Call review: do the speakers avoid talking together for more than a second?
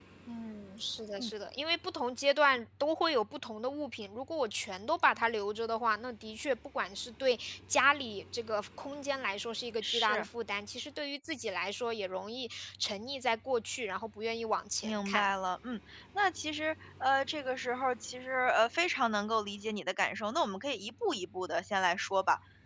Yes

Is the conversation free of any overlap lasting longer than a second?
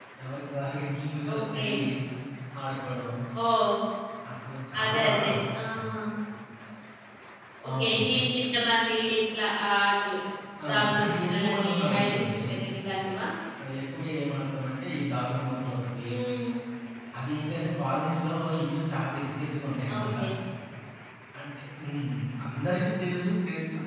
No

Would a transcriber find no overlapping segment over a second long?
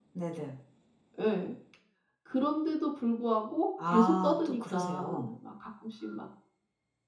No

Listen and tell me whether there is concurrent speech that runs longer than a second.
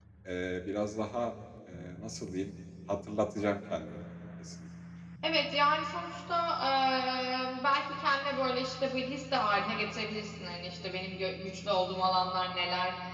No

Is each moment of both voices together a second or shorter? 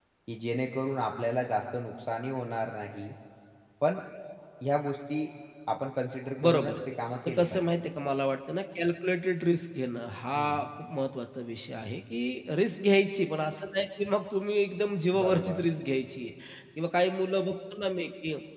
Yes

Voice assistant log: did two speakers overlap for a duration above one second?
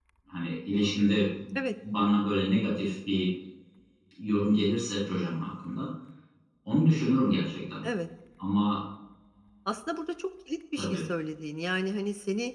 No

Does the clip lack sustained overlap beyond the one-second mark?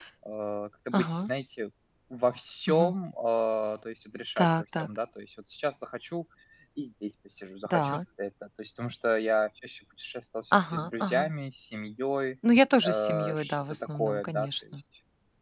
No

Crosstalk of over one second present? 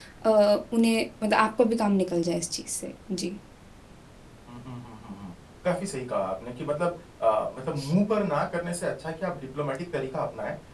No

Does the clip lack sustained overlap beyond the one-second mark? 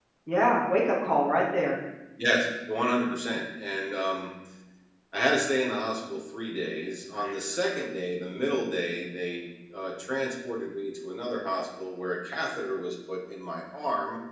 Yes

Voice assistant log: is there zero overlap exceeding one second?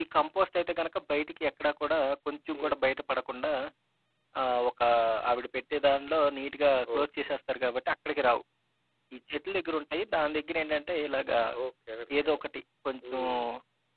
Yes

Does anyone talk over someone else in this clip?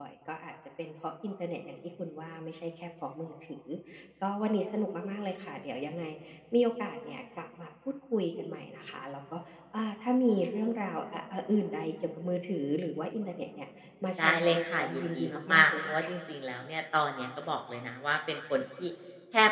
Yes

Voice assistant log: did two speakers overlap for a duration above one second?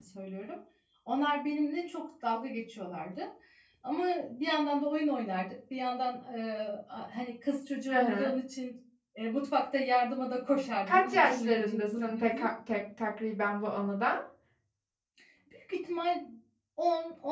Yes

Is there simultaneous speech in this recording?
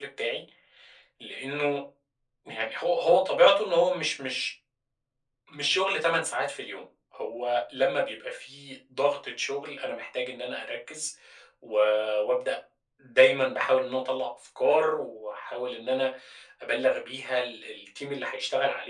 No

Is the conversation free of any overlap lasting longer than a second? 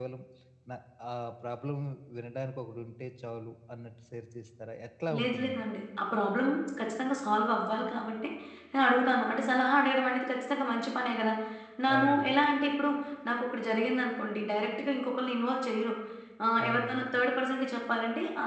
Yes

